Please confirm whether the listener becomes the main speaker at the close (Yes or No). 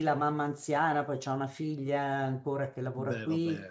No